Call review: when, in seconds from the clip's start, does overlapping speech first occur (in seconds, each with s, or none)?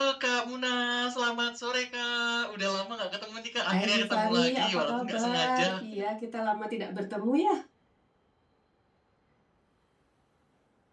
3.7 s